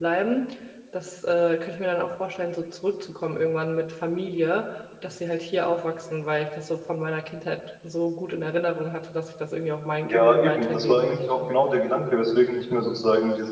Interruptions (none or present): present